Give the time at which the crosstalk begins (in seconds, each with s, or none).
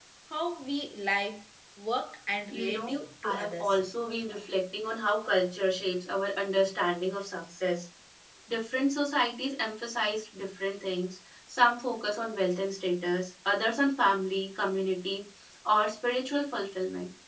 2.5 s